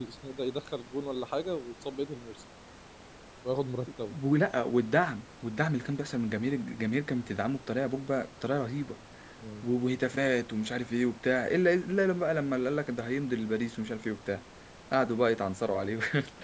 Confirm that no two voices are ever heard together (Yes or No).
Yes